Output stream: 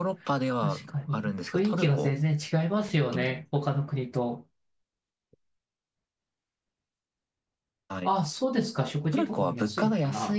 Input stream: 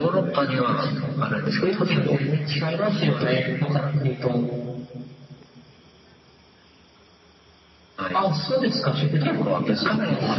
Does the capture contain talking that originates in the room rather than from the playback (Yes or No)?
No